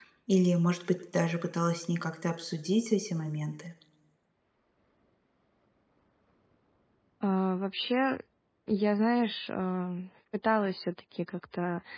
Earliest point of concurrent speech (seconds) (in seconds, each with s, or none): none